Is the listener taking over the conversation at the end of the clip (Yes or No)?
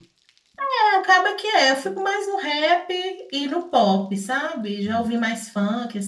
No